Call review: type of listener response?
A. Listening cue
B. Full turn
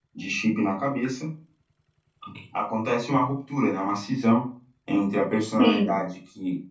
A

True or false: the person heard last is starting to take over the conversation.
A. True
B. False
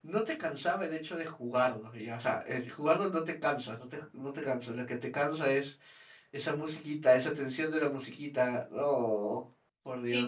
A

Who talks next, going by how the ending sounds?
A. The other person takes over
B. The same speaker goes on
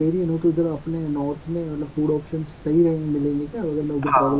A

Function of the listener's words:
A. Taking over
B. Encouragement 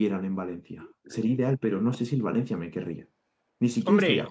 A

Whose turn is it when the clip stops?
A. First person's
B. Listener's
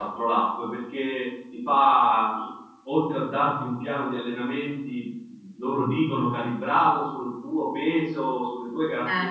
A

